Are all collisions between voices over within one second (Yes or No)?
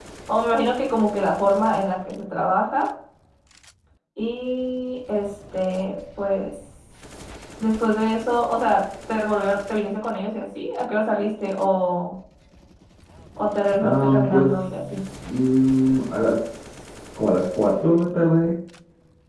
No